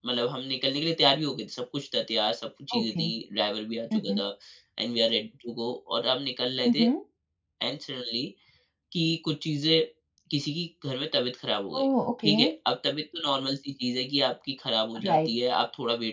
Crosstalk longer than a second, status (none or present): none